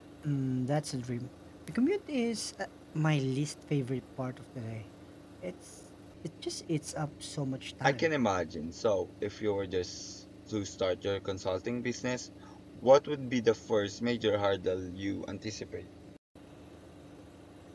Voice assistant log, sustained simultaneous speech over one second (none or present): none